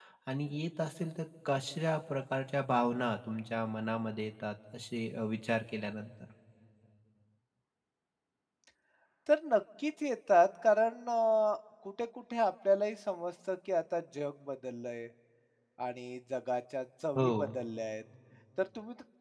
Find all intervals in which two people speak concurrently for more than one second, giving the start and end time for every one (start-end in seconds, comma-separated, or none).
none